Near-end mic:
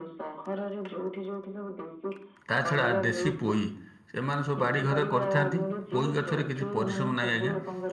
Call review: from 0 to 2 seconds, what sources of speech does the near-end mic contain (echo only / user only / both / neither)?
echo only